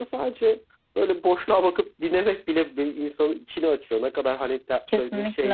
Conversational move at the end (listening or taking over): listening